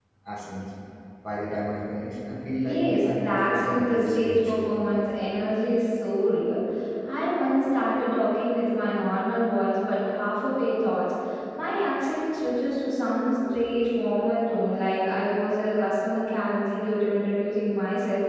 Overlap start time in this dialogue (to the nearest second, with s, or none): 3 s